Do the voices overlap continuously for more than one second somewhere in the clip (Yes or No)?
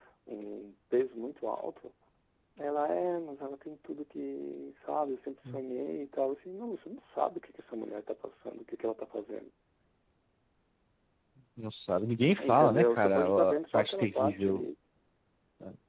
Yes